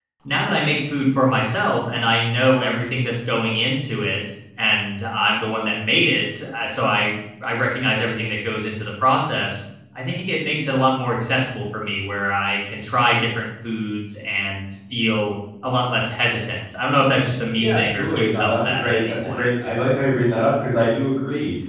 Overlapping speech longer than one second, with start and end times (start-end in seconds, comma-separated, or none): 17.6-19.5